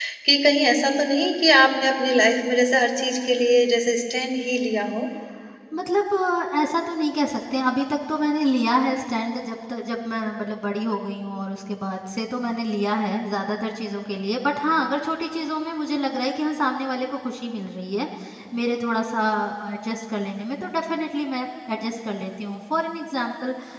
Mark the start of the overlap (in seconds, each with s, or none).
none